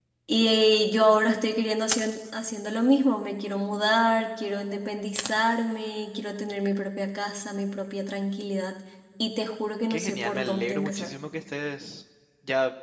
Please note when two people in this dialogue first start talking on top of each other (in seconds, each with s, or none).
9.9 s